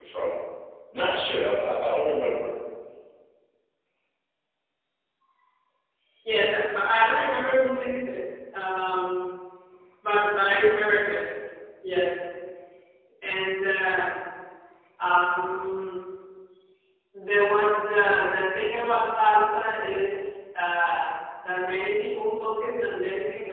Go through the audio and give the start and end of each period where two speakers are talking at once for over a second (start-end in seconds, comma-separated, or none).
none